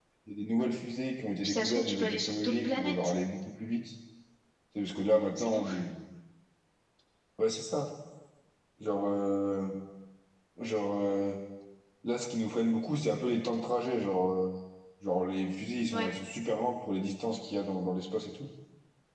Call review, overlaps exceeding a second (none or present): present